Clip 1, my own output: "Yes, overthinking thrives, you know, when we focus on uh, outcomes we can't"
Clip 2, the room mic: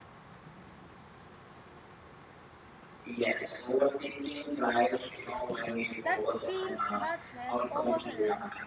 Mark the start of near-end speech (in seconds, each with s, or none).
6.0 s